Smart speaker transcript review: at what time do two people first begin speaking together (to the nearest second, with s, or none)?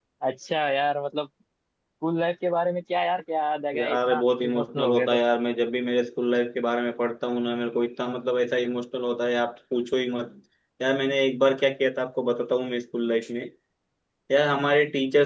4 s